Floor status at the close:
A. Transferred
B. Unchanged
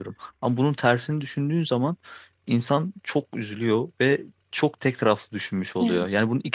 B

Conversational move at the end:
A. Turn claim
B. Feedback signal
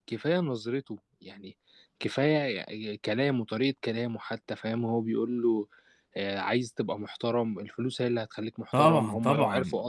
A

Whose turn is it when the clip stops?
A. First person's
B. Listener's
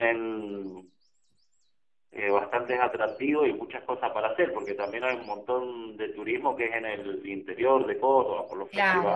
B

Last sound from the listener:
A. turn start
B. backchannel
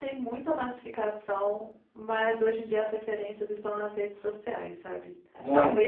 B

